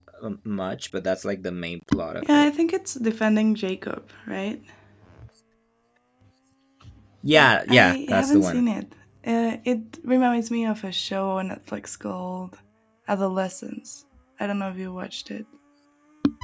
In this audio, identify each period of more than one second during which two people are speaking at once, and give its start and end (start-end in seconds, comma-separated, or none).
7.3-8.6